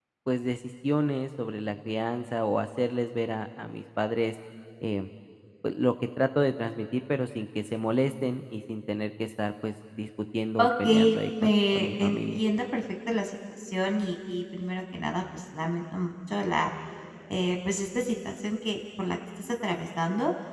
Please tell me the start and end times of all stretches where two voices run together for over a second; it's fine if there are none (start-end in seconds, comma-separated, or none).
10.6-12.4